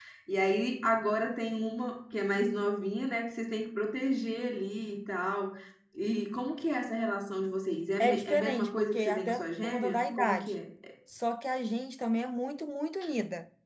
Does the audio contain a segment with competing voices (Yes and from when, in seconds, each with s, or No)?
Yes, from 8.0 s